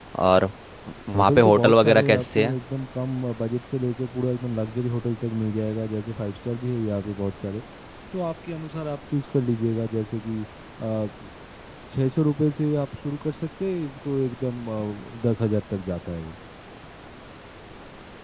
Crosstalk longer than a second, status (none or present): present